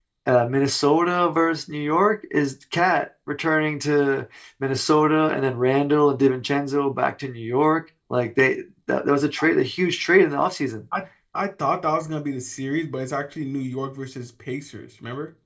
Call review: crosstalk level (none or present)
none